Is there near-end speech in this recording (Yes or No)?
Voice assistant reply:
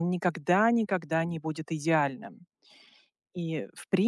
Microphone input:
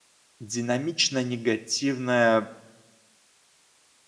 Yes